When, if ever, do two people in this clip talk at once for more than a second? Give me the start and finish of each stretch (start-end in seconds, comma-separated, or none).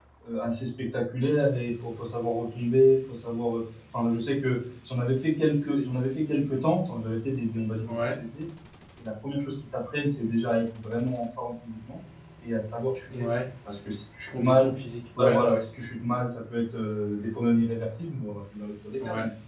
none